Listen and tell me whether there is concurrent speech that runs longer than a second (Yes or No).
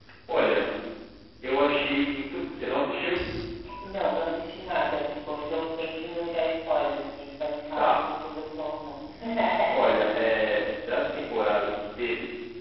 No